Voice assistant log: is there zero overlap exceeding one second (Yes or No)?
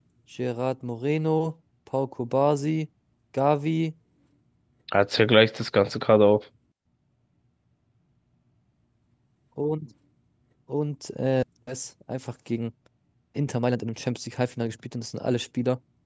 Yes